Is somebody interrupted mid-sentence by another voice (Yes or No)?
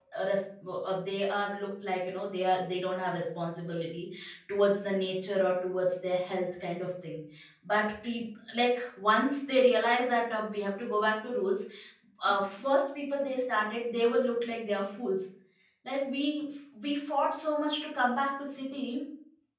No